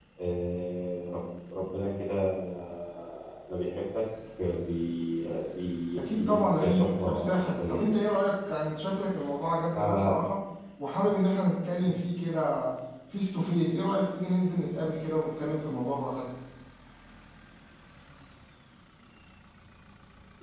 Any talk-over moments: Yes, from 6.0 s

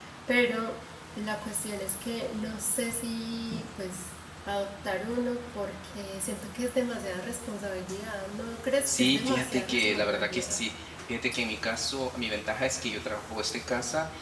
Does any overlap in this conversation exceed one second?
Yes, from 8.8 s

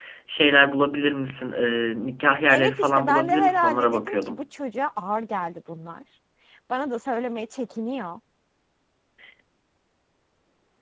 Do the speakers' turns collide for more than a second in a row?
Yes, from 2.5 s

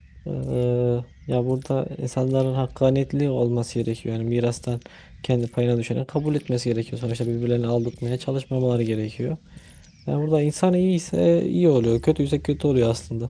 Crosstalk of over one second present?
No

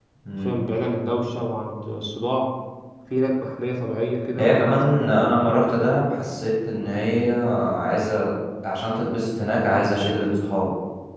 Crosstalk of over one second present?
No

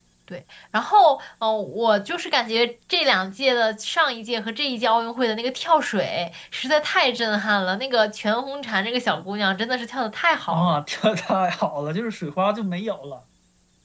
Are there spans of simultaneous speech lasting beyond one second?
No

